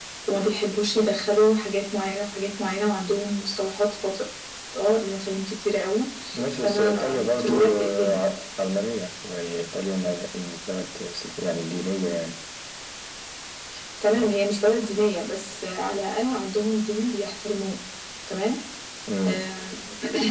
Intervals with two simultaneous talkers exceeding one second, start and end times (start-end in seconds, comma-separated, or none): 6.6-8.2